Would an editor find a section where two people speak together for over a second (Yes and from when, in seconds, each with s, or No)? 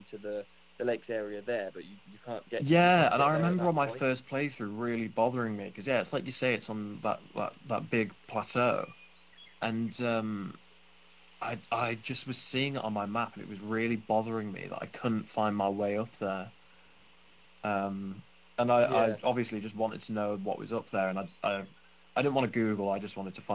Yes, from 2.6 s